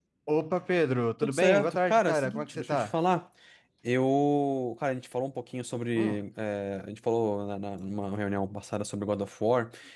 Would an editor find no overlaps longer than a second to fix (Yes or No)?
No